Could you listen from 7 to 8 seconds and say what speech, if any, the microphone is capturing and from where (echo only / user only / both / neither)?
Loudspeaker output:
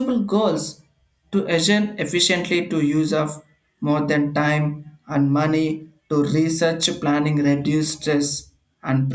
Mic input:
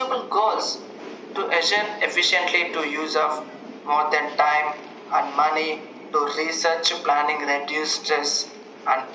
echo only